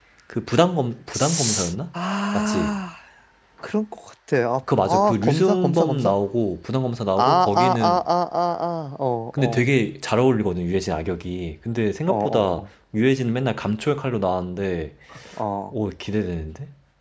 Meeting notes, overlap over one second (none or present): present